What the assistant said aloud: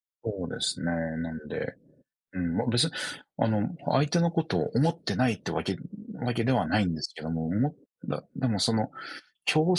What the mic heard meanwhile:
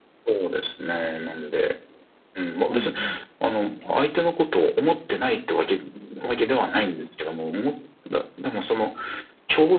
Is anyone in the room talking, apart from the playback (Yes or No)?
Yes